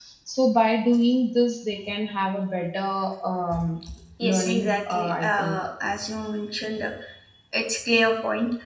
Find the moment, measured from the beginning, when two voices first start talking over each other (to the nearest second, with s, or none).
4 s